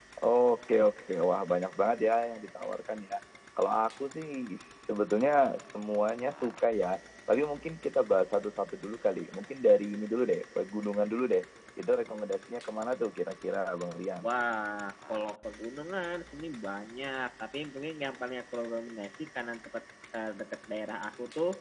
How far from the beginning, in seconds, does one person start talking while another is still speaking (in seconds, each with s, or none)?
none